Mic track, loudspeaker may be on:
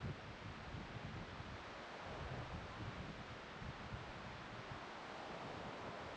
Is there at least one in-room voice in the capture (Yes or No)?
No